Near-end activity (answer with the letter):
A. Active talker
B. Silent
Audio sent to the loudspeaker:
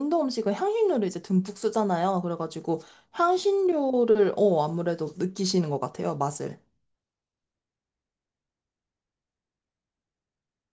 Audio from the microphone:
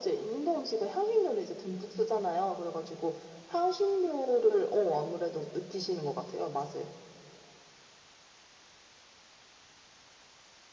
B